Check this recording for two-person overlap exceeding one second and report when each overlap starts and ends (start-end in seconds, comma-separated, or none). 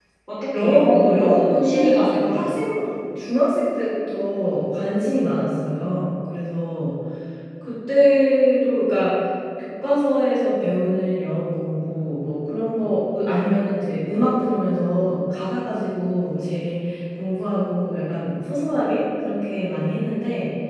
0.5-2.6